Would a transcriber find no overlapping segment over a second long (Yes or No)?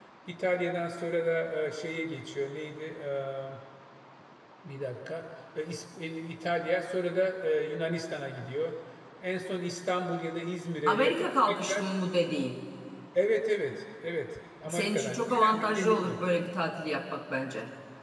No